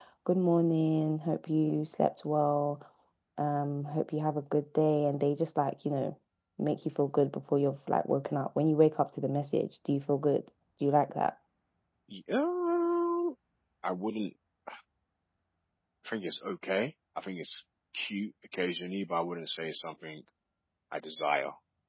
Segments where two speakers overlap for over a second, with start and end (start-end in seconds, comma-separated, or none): none